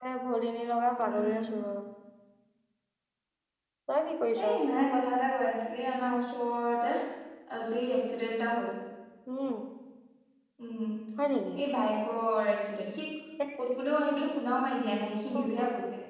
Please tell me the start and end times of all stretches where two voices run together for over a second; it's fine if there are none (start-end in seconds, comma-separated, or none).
none